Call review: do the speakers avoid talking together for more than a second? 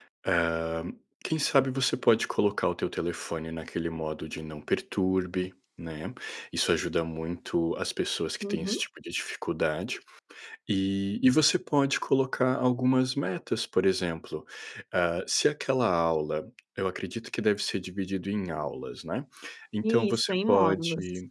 No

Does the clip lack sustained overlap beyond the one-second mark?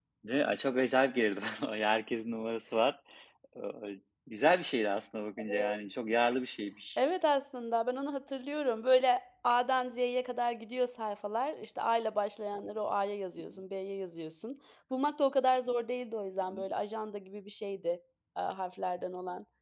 Yes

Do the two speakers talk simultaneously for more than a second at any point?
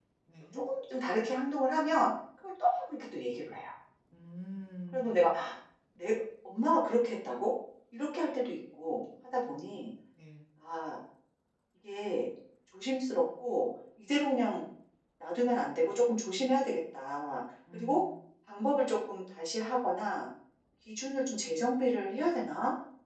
No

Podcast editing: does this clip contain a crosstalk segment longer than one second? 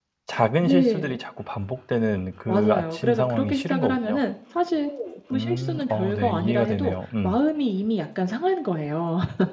Yes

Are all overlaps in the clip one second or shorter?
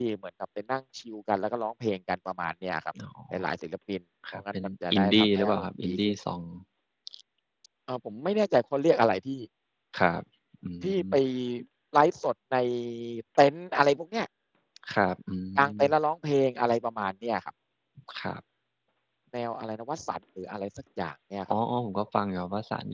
No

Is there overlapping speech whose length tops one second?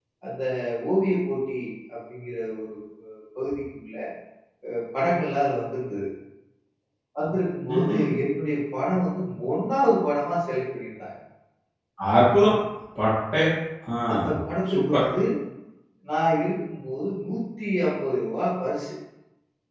No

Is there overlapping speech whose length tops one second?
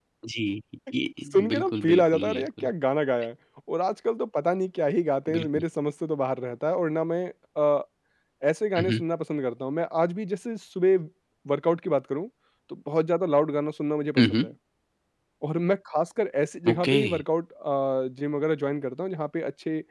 Yes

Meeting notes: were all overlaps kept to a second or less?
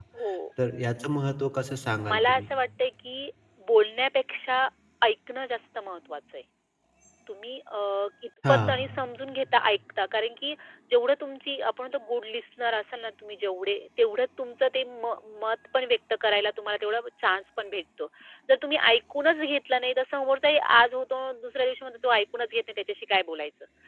Yes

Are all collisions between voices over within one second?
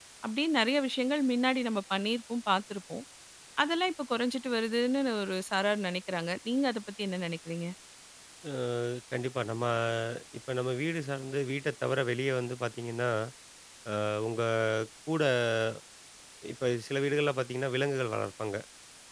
Yes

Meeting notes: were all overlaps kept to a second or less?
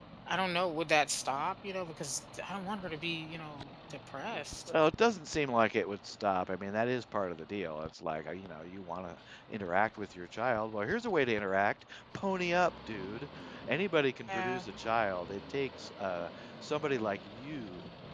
Yes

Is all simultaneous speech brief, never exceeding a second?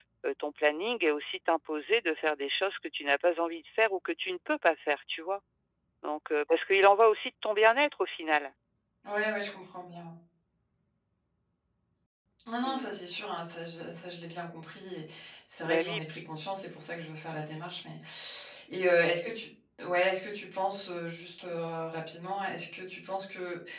Yes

